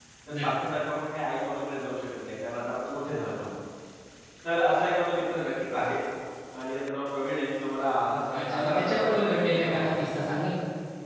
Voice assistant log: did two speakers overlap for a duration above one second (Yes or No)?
Yes